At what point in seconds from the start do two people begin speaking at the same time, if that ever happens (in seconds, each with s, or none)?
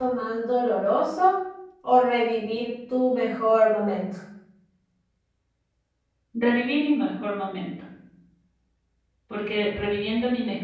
none